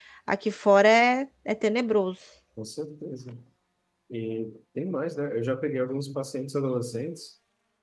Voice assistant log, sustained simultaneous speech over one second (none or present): none